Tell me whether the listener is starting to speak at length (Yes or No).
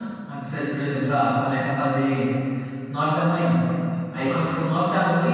No